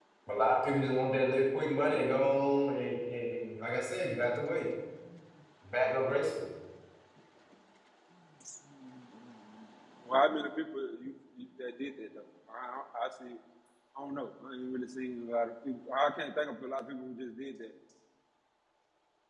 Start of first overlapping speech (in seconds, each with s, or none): none